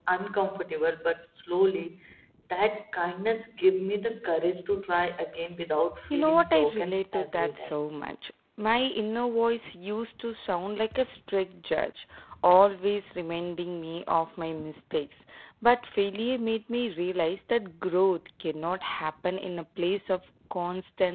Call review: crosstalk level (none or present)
present